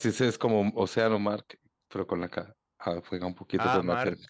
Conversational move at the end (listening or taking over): taking over